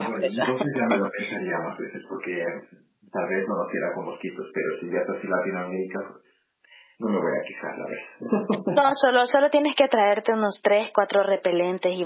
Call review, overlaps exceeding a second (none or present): none